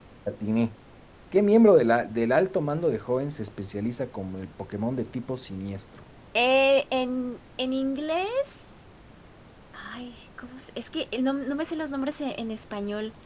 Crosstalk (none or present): none